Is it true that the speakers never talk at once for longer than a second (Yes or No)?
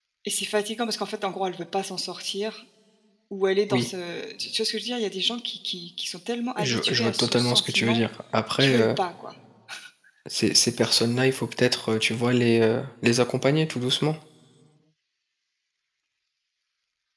No